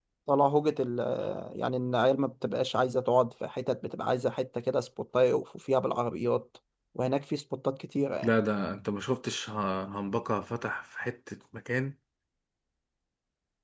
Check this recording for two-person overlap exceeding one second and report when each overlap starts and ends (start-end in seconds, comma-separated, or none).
none